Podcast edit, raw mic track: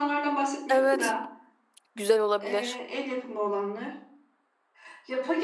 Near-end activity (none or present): present